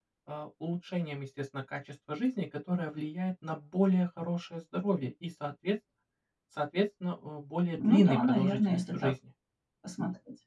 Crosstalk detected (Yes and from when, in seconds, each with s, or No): Yes, from 7.8 s